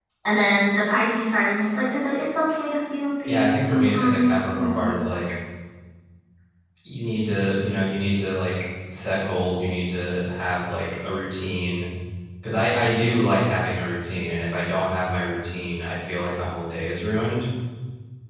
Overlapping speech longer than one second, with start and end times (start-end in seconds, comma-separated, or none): 3.3-4.9